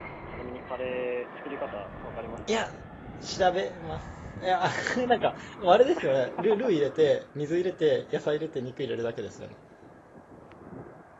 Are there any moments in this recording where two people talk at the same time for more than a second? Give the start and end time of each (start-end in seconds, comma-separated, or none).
none